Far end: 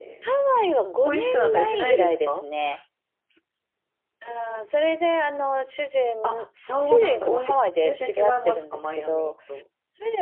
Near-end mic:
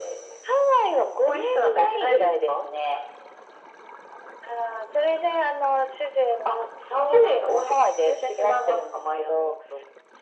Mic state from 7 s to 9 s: echo only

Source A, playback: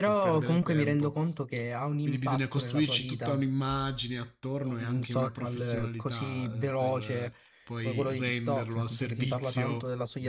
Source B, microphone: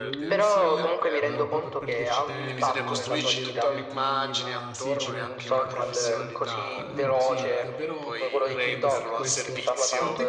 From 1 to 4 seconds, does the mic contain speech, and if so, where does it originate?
both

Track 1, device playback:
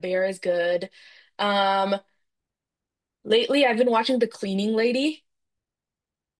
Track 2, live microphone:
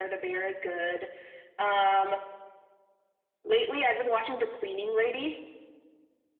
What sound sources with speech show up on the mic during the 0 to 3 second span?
echo only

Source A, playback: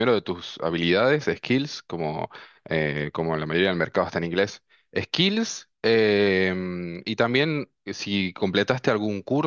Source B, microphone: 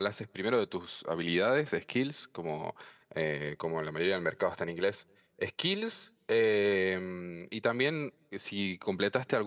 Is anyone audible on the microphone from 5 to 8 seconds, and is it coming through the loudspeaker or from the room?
echo only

